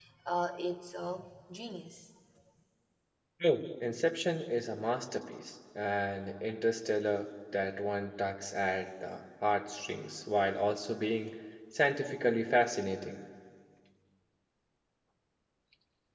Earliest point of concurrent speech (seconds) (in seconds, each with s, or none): none